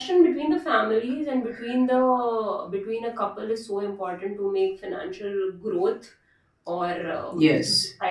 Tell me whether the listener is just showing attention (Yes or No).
Yes